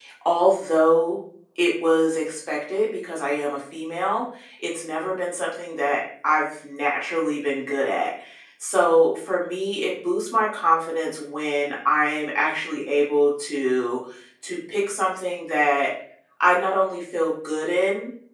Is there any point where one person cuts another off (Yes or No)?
No